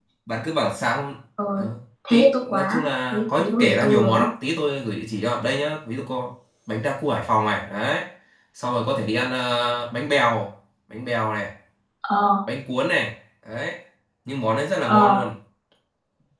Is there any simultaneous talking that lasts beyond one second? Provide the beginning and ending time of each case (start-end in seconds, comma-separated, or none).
2.1-4.2